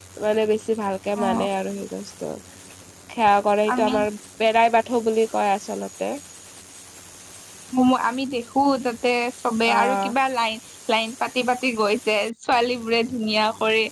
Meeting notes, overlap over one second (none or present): none